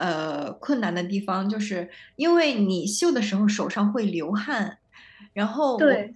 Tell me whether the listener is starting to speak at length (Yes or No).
No